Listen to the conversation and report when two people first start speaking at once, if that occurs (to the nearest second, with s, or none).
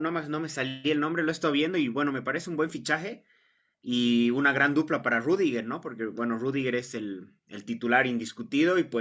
none